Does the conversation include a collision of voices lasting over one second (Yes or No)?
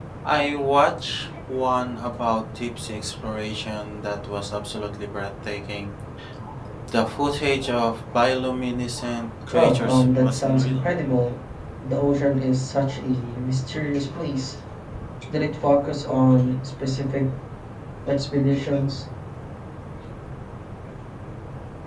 Yes